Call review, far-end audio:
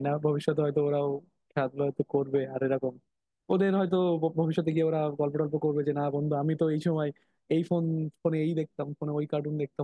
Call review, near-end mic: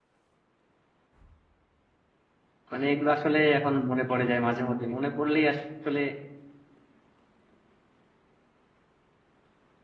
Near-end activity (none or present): present